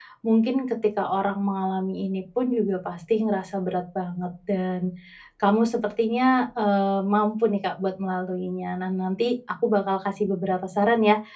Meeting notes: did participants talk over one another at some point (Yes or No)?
No